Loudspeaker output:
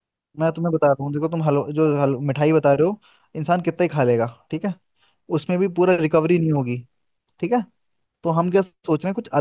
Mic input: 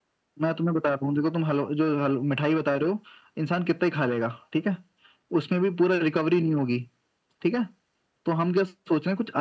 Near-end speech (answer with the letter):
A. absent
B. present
A